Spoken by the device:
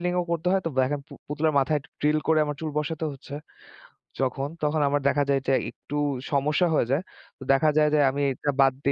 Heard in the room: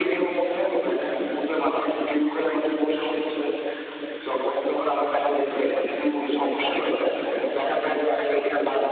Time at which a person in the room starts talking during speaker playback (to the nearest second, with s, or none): none